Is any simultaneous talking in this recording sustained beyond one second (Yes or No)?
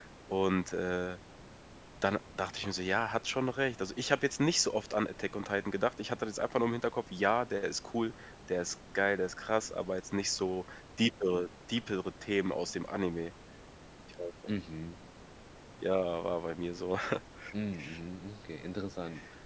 No